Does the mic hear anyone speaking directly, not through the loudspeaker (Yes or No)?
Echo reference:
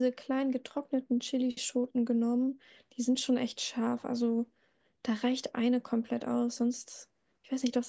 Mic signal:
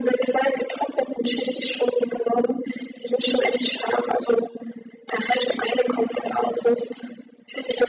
No